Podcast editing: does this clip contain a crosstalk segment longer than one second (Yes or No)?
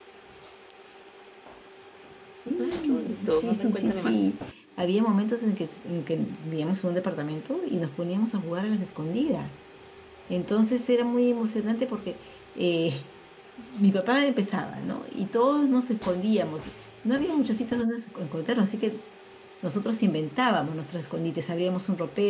Yes